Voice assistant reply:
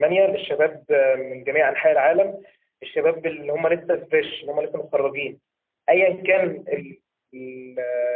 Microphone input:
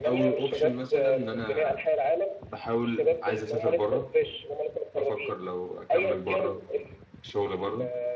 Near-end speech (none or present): present